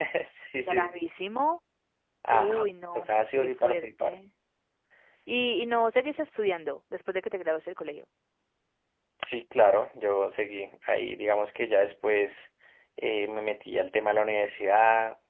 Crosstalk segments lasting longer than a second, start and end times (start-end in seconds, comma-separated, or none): 2.3-4.2